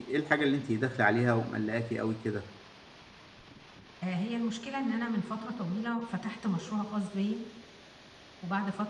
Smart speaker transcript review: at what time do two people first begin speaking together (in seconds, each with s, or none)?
none